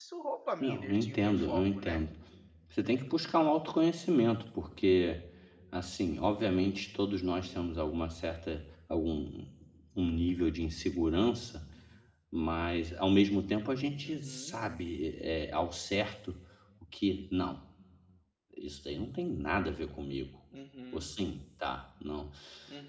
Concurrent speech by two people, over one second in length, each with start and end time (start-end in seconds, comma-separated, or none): 0.6-2.0